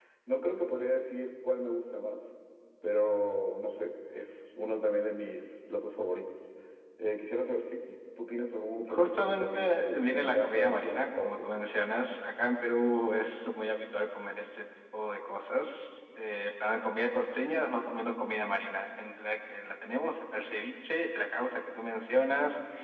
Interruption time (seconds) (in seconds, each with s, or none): 8.9 s